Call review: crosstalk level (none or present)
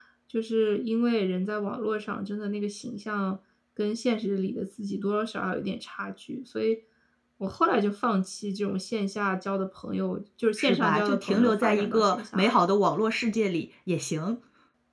present